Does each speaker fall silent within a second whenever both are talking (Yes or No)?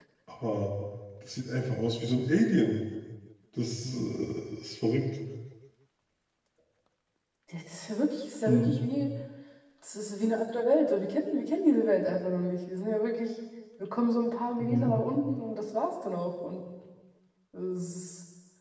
Yes